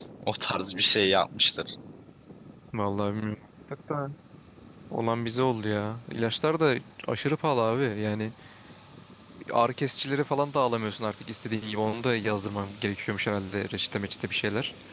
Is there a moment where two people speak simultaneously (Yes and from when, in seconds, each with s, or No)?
No